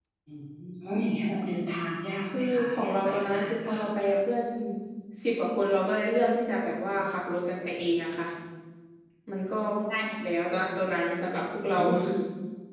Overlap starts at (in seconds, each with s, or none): 2.4 s